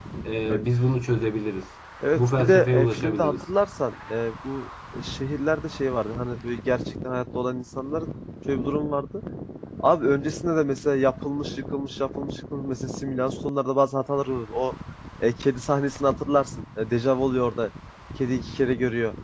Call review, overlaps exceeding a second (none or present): present